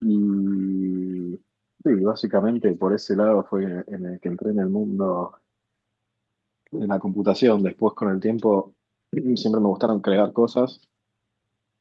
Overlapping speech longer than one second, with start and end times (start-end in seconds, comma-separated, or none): none